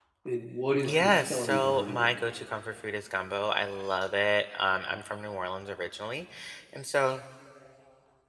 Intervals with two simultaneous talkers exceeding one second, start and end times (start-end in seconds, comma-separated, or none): 0.8-2.1